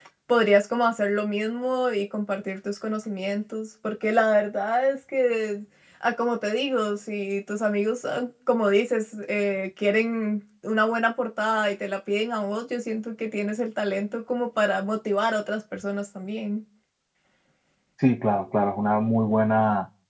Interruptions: none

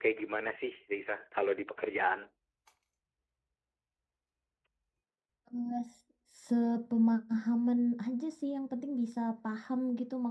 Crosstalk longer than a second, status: none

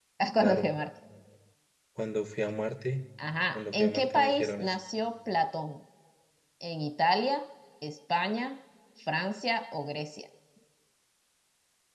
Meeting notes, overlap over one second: present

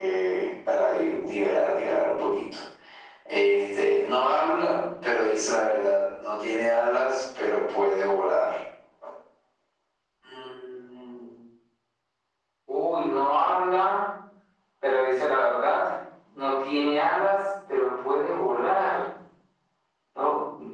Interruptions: none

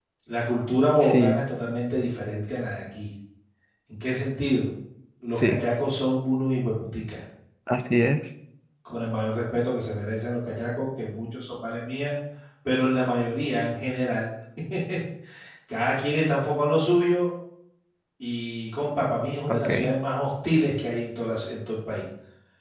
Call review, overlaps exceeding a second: none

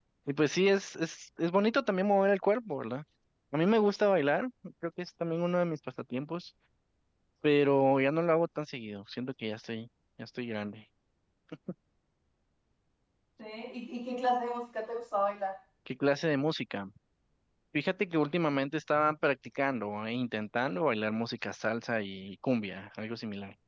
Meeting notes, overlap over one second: none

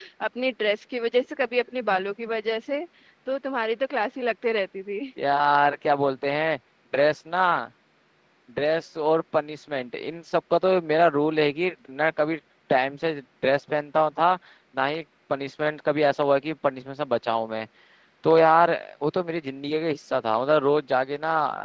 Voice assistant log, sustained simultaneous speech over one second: none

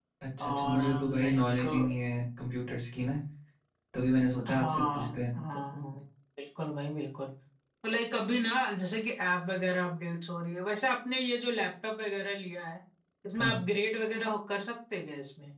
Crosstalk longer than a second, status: present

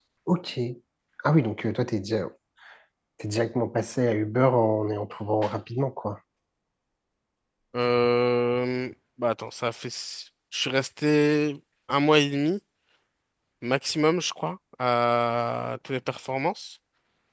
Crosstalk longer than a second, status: none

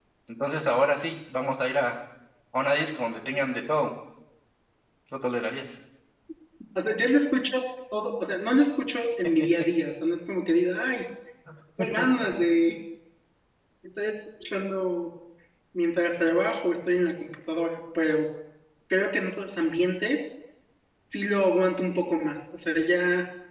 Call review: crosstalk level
none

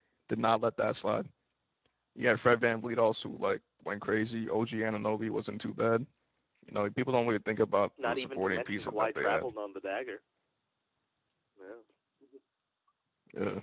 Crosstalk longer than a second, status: present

